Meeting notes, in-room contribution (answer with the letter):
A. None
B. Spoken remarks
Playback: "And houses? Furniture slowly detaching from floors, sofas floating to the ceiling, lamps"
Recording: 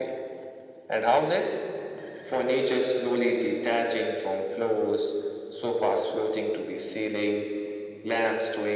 A